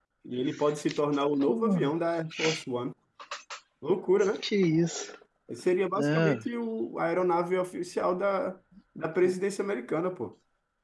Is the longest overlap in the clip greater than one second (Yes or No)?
No